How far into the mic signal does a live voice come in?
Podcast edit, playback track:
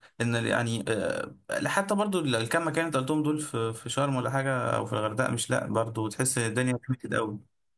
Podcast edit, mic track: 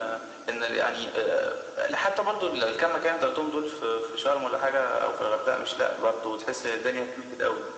none

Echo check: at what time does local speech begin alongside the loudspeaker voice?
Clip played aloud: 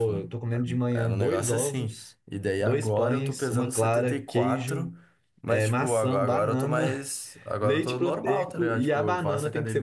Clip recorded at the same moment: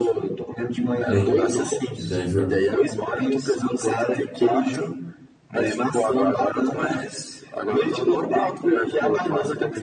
1.1 s

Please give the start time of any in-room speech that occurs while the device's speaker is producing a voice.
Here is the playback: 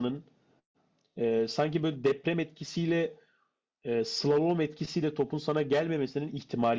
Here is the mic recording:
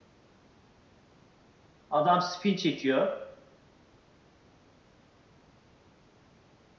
1.9 s

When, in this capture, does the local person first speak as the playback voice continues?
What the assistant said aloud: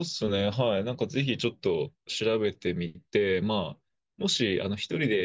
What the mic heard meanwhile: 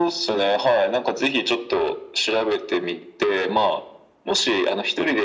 none

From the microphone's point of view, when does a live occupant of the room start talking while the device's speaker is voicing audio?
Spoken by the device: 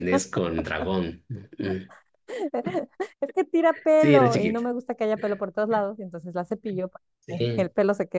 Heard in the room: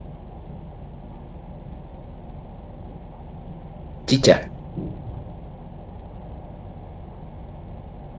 4.1 s

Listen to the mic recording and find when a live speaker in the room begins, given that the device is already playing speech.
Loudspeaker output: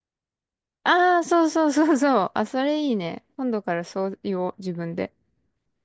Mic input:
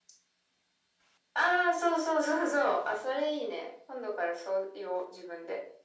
none

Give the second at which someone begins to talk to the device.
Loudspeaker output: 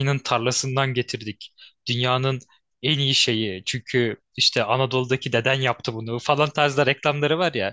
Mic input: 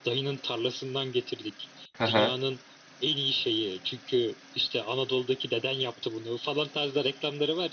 2.0 s

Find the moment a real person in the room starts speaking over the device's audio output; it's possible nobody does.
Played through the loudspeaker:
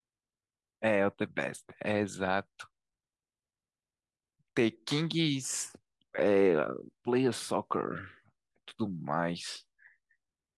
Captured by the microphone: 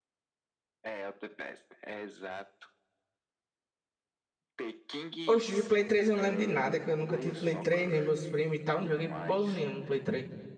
5.3 s

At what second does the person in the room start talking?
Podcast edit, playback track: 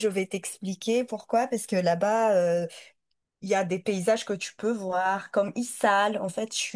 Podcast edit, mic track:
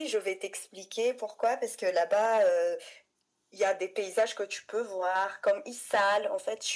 none

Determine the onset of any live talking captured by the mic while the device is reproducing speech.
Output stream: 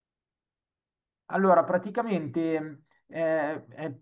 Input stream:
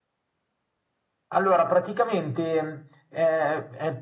none

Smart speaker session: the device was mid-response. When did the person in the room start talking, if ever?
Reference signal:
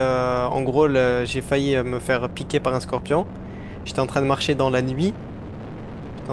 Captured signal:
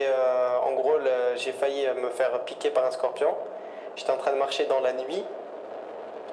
none

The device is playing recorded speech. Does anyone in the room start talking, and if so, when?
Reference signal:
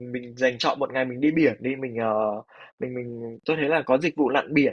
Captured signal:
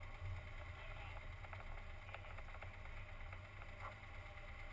none

